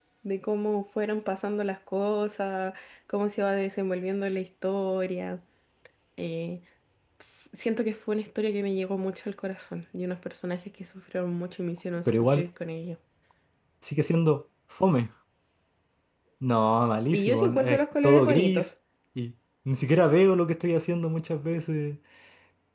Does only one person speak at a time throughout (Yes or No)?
No